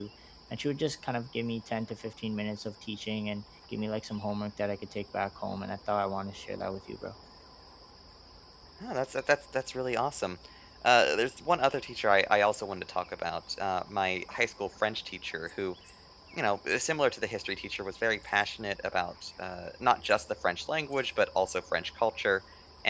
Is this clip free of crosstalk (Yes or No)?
Yes